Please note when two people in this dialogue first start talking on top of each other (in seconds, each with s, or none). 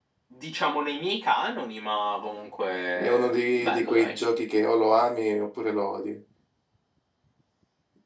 3.0 s